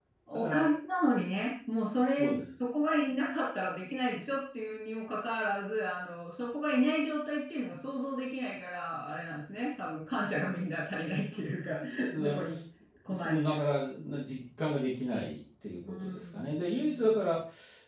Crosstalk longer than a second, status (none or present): present